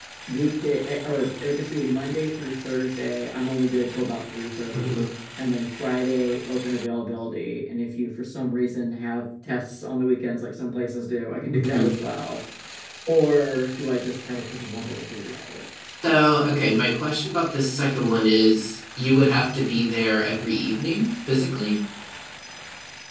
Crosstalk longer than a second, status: none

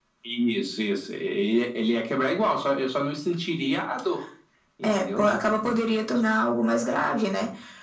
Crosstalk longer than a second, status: none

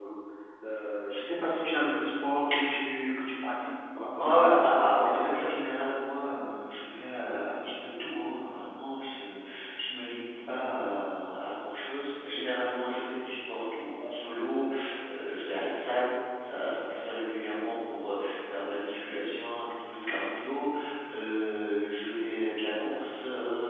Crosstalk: present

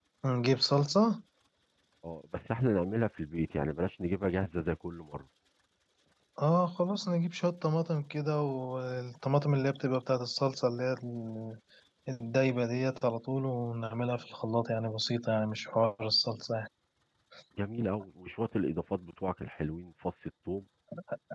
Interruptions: none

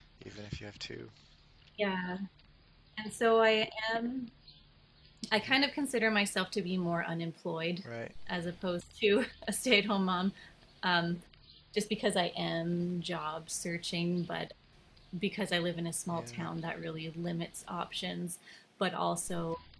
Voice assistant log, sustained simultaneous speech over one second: none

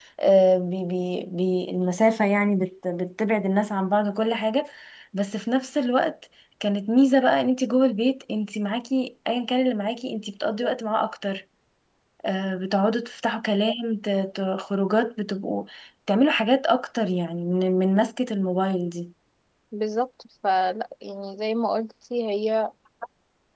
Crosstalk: none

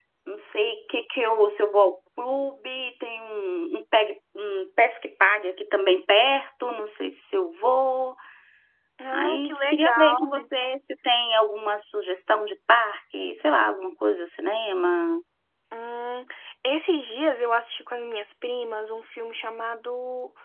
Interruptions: present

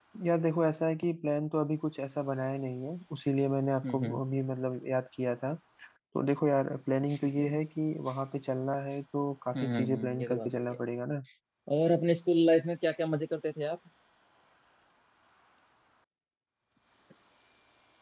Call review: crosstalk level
present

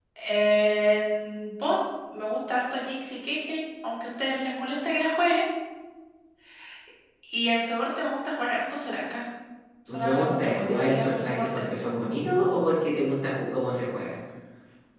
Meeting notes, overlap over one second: present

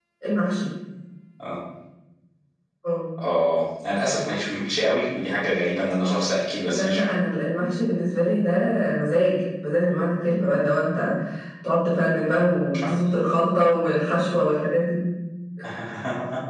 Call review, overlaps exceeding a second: none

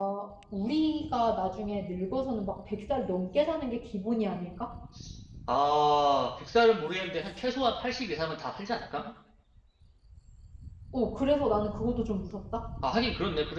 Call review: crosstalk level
none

